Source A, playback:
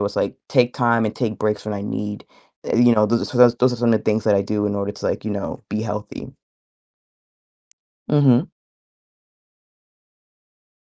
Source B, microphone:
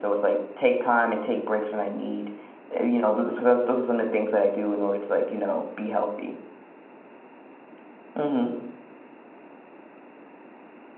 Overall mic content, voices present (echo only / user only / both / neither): echo only